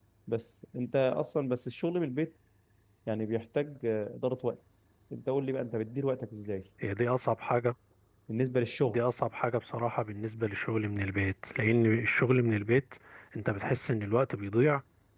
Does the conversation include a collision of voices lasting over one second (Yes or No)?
No